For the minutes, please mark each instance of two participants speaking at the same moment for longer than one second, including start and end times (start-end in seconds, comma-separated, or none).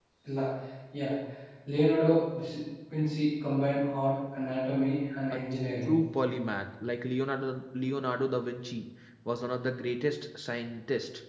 none